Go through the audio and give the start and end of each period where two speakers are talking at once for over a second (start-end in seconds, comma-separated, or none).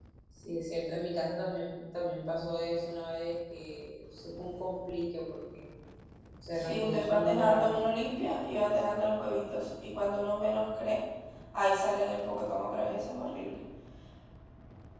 6.5-7.8